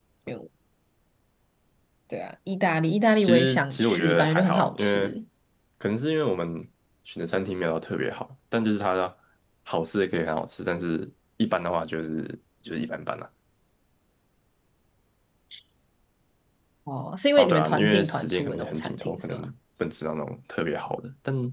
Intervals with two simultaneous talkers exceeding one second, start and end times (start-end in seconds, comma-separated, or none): 3.2-5.1, 17.4-19.4